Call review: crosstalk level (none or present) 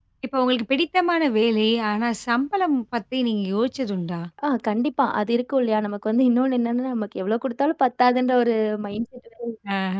none